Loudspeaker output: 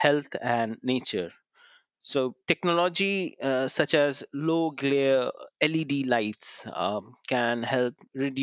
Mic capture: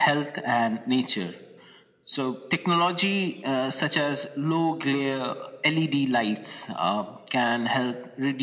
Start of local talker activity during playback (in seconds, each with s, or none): none